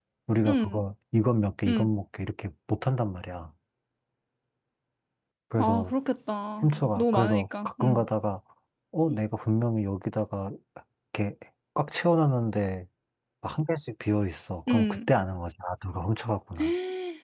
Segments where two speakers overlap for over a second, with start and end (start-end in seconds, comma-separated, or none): 6.6-8.0